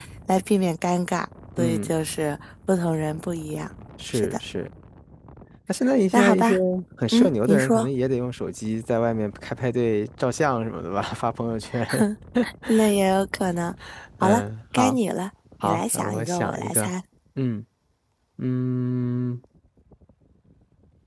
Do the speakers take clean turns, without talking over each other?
No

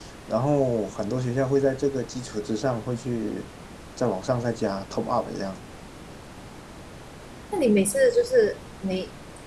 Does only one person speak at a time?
Yes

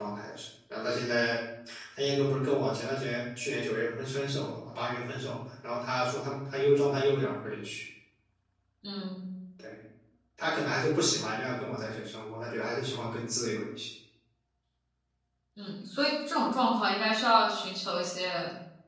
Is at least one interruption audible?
No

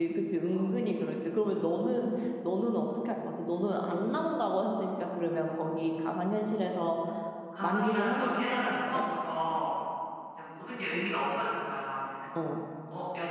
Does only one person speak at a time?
No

